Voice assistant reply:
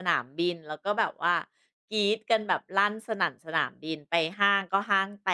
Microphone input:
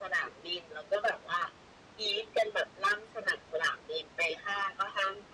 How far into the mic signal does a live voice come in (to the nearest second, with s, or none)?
none